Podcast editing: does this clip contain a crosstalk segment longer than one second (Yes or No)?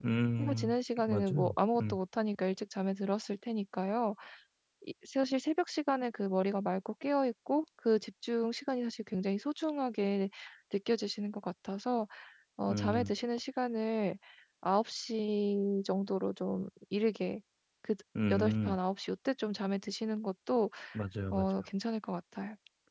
Yes